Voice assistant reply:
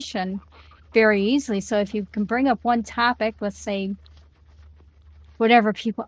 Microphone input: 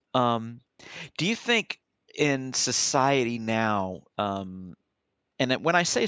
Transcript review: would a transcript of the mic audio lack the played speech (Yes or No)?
Yes